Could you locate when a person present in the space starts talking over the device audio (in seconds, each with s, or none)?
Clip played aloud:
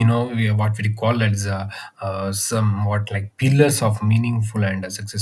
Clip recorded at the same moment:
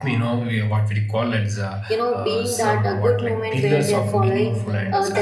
1.9 s